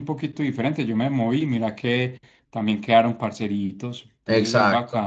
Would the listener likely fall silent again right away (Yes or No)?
No